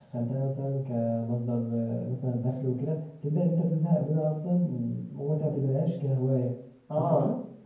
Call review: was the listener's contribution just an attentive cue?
No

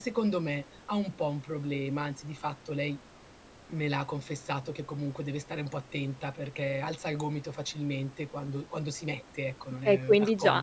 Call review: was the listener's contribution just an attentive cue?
No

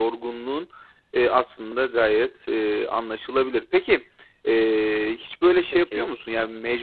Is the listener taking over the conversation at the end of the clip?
No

